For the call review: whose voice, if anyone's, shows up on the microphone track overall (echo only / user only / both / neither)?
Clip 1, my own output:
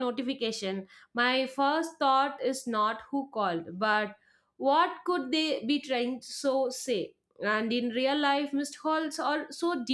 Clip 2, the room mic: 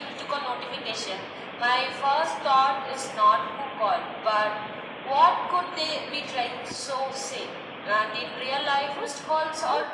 echo only